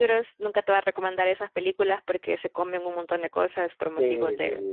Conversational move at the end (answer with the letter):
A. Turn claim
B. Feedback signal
A